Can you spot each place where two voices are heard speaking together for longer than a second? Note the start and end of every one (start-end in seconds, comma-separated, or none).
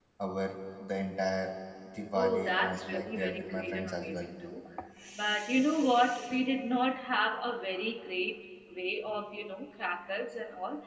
2.1-4.3